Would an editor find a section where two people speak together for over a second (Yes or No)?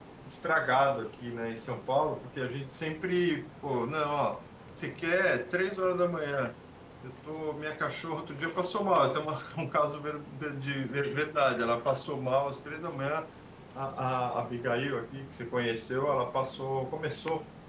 No